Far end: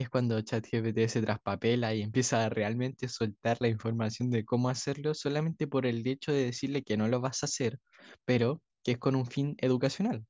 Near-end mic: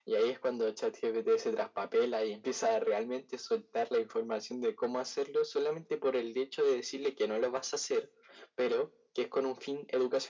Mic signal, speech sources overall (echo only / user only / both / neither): echo only